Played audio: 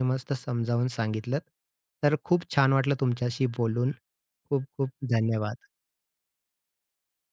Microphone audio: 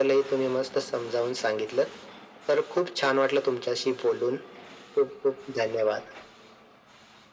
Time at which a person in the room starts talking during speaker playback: none

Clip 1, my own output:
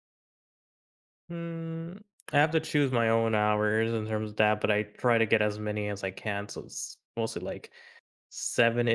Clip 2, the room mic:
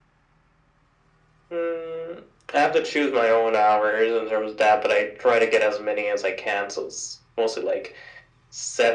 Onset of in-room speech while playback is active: none

